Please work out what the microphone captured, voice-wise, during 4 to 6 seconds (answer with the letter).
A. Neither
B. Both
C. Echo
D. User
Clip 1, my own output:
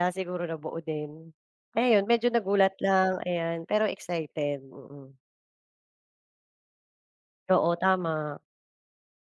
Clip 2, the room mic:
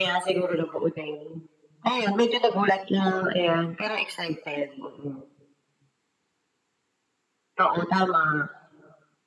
C